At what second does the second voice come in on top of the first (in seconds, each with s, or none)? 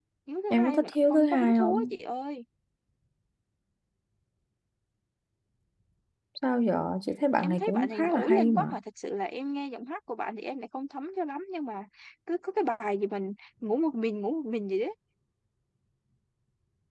0.5 s